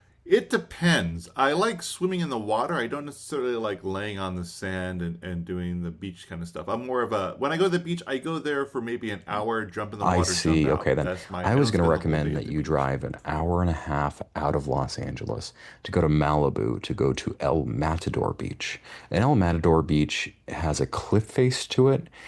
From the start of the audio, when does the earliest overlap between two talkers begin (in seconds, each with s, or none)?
10.0 s